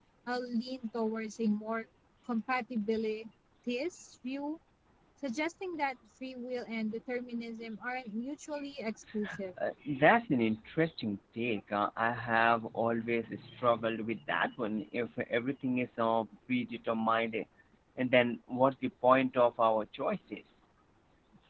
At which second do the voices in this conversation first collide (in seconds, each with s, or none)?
none